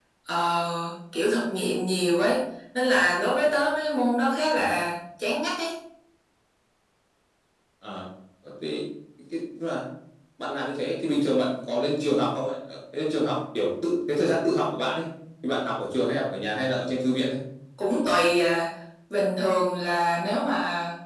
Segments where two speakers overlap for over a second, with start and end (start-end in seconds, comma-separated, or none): none